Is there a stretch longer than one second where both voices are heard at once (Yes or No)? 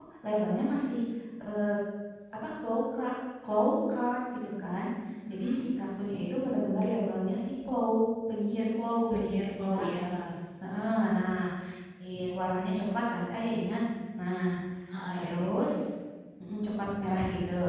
No